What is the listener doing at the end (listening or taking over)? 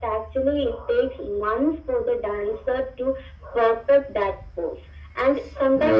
listening